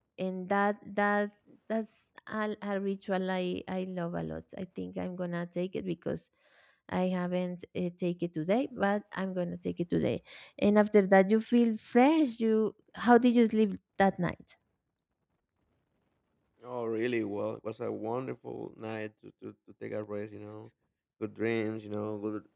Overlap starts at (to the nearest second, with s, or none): none